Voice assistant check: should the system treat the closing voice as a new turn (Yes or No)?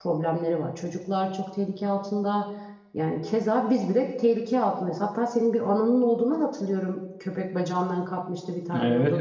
Yes